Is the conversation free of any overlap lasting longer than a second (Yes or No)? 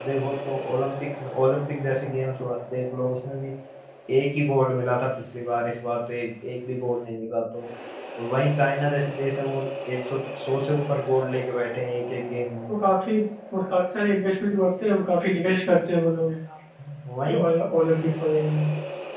Yes